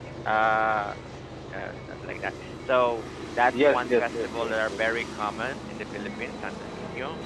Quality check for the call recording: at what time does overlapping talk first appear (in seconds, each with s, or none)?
3.5 s